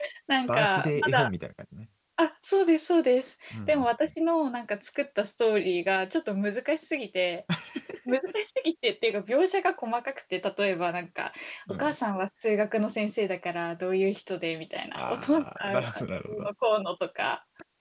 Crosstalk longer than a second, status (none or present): present